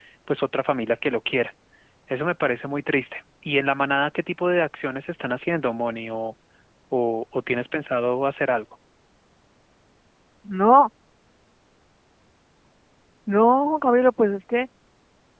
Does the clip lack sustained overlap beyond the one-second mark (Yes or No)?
Yes